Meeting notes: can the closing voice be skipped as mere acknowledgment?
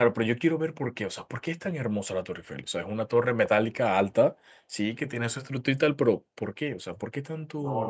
No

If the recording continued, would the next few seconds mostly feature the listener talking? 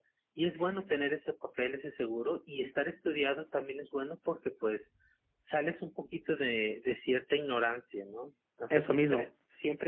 No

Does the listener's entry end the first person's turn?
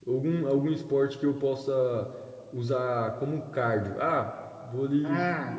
No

